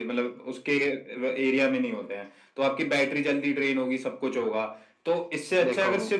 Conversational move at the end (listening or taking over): listening